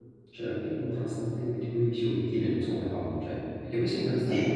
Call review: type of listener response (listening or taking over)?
listening